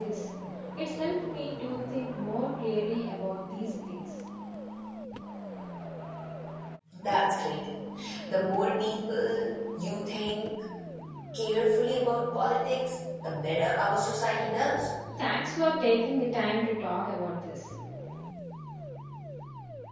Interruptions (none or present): none